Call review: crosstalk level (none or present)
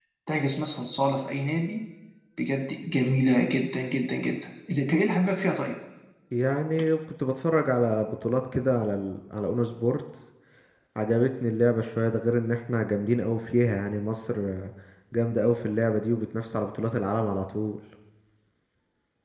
none